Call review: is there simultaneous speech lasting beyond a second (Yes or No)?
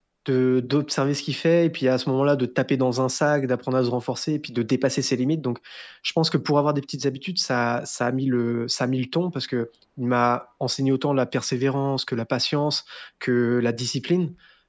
No